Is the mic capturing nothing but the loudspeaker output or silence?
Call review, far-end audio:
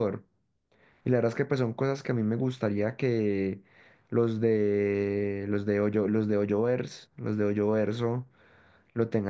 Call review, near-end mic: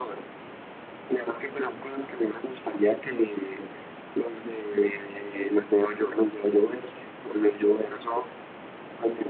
Yes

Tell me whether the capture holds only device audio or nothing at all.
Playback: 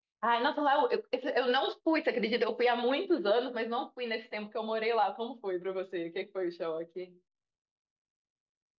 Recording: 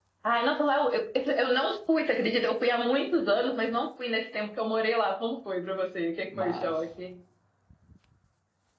No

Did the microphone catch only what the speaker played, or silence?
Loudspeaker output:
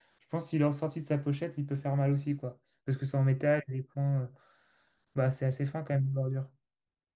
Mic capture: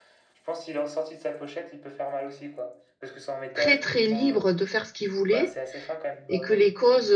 No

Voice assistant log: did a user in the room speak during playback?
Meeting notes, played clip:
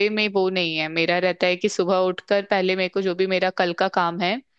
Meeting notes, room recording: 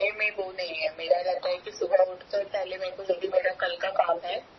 No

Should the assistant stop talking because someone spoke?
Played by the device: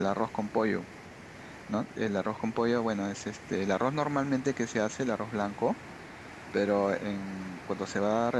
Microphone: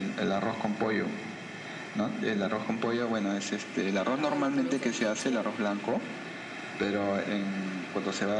Yes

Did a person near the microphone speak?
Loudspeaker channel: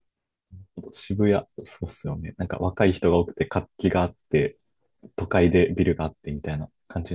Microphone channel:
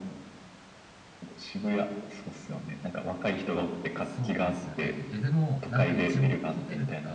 Yes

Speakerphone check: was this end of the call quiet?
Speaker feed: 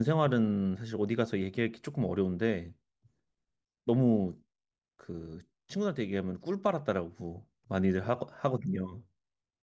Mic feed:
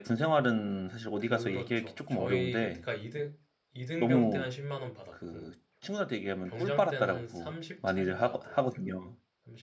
No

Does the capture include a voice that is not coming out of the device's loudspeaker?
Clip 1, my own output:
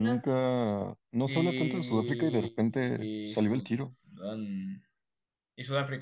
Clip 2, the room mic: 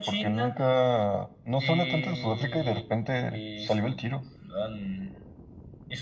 No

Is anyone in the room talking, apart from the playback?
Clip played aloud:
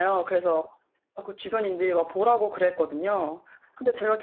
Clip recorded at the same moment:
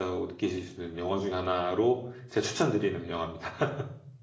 Yes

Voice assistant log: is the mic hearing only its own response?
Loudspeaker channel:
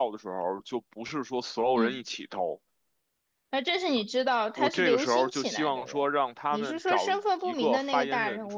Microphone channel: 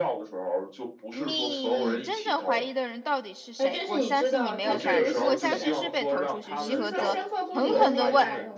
No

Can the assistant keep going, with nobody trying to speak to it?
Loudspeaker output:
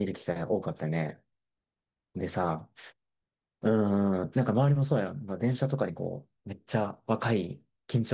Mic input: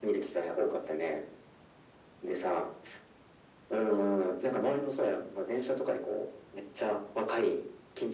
Yes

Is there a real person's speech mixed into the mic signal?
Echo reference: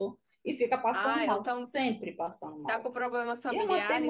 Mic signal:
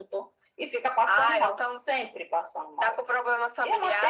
No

